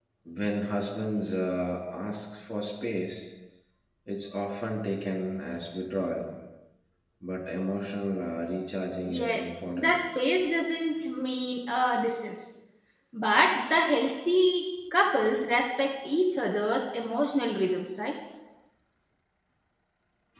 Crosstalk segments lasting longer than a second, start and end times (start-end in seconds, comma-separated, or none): none